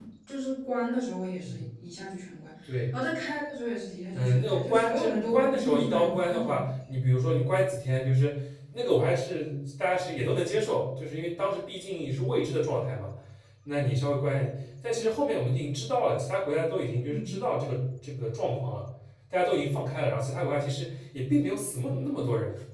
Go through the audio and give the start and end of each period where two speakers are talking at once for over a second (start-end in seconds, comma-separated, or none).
4.1-6.5